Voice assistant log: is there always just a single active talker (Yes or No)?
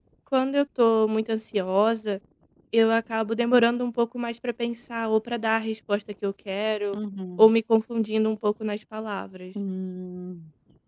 Yes